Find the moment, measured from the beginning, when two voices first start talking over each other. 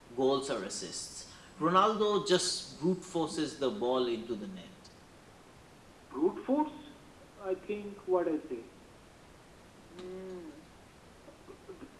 none

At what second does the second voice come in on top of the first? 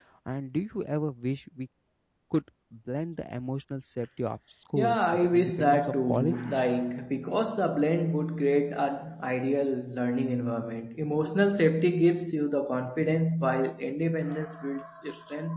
4.8 s

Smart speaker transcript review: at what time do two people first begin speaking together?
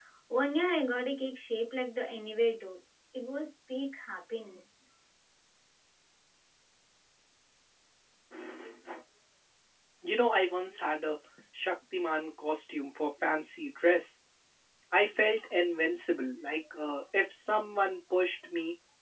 none

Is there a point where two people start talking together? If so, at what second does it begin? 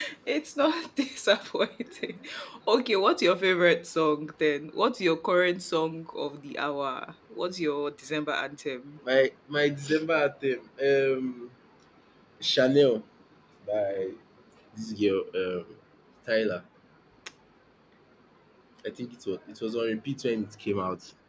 none

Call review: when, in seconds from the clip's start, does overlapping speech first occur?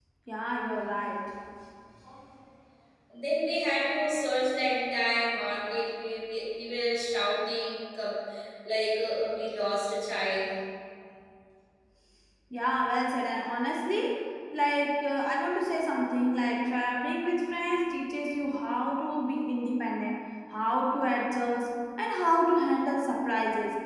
none

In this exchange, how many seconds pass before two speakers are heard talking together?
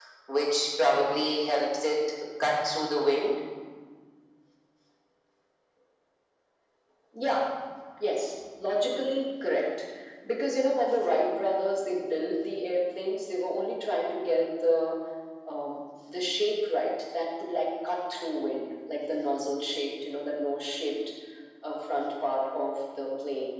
none

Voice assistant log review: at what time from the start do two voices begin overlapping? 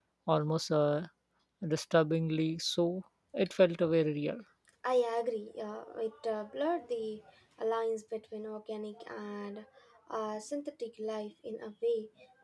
none

